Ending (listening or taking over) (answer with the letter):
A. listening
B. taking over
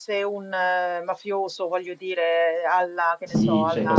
B